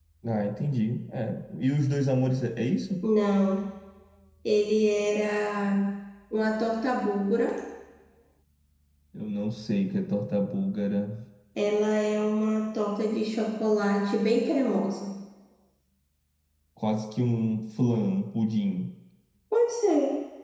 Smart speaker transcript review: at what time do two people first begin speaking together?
none

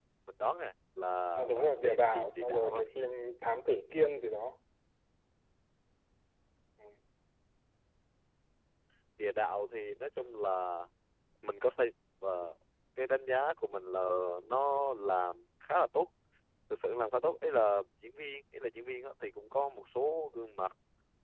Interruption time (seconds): 1 s

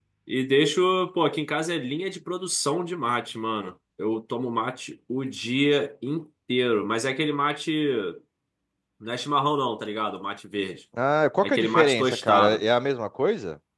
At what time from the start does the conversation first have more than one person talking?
11 s

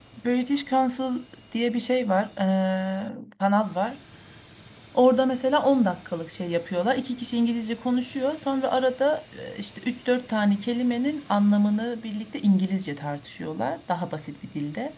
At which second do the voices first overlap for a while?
none

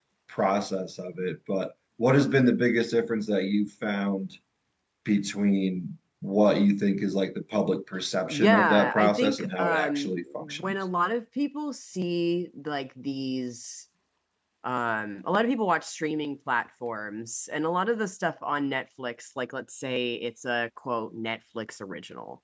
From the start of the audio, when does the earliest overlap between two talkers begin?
8 s

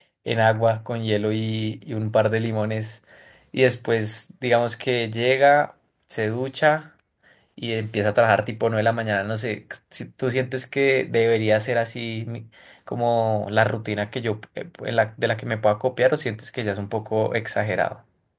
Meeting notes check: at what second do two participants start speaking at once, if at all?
none

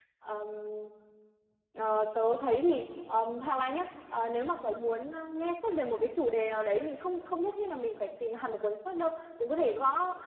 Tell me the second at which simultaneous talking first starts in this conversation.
none

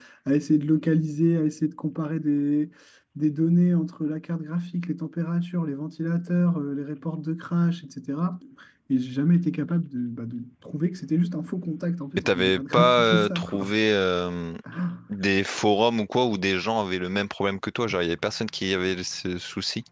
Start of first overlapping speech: 12 s

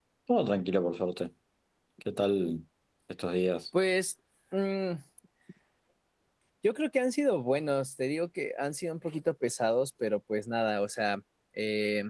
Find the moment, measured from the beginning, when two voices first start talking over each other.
none

